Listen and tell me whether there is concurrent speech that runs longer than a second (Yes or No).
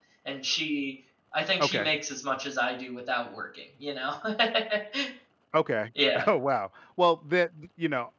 No